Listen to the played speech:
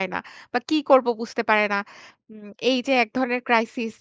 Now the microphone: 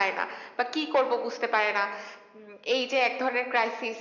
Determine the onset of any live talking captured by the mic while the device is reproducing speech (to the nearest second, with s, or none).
none